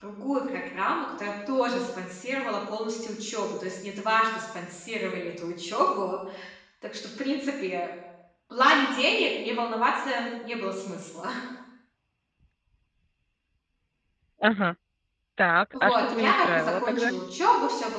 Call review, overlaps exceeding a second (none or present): present